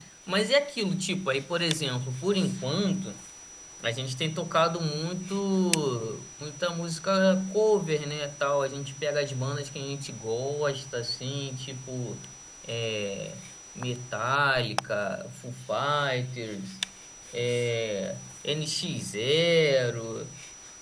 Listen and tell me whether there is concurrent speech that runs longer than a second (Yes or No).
No